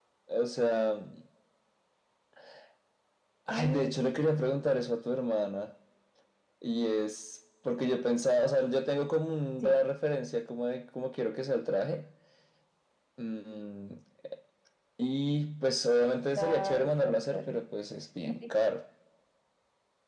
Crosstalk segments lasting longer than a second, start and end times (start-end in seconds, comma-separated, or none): 16.4-17.6